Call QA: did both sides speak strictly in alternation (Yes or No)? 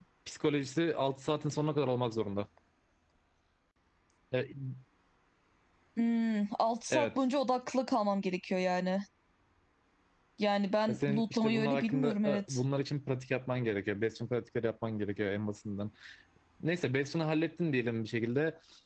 No